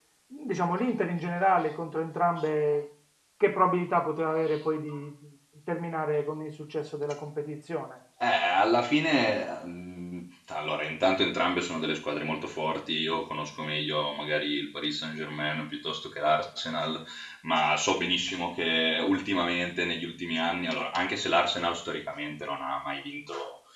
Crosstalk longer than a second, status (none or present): none